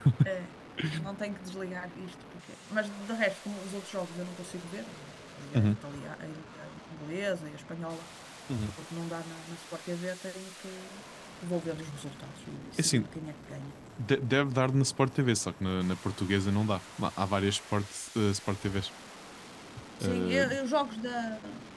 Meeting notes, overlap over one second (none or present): none